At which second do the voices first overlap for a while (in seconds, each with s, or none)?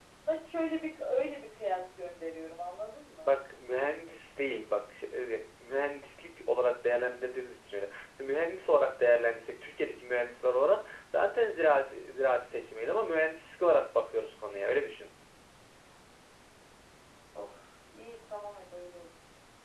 none